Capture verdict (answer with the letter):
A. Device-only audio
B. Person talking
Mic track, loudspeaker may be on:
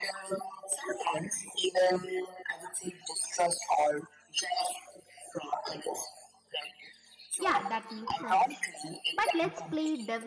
B